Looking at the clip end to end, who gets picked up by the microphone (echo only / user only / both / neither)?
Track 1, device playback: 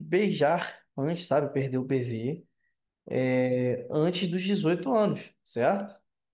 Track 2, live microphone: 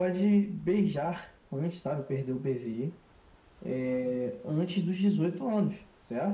echo only